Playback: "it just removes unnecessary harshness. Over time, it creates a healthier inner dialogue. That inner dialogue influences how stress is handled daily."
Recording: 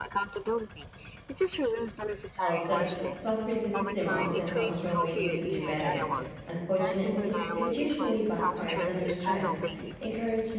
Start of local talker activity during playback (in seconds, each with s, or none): 2.4 s